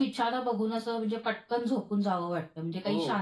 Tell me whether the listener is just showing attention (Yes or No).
Yes